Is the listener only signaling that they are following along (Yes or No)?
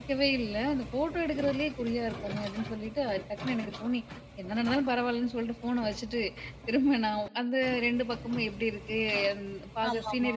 Yes